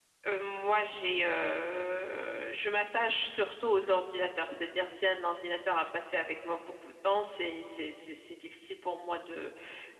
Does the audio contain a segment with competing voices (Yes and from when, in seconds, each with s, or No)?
No